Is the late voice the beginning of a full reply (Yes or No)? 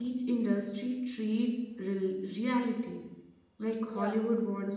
No